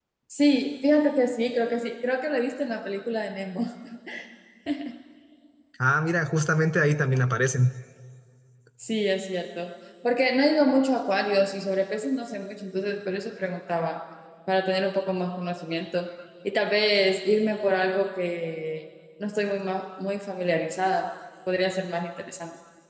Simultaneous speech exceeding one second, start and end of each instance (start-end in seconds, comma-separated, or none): none